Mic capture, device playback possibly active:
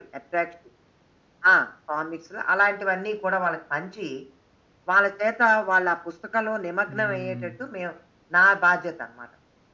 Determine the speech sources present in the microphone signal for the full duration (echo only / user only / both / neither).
both